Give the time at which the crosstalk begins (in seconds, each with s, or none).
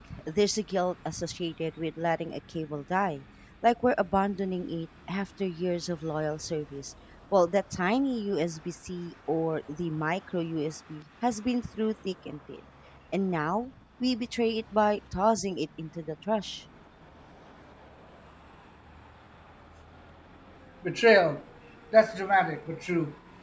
none